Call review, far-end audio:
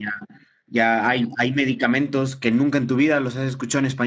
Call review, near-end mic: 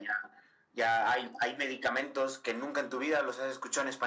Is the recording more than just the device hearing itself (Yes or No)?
No